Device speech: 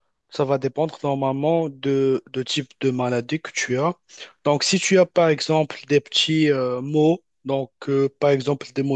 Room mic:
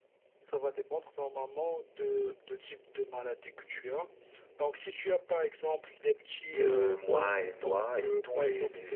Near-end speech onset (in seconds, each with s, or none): 6.6 s